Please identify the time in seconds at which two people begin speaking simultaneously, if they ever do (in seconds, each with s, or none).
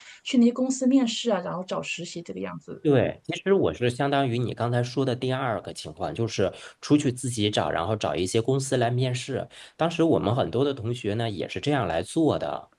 none